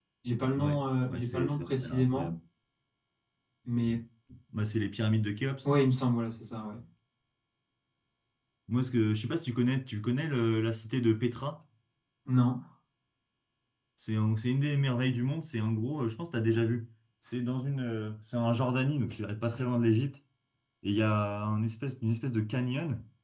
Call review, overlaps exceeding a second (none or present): present